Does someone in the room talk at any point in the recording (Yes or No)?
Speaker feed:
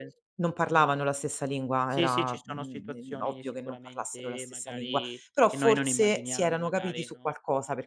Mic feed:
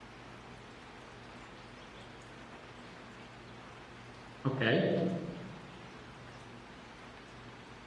Yes